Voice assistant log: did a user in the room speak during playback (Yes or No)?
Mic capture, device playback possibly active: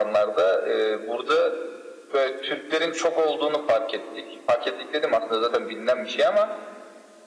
No